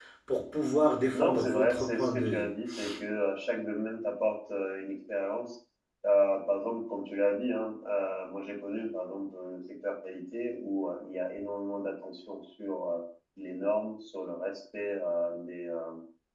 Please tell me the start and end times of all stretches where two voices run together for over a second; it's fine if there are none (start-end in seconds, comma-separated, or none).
1.1-2.5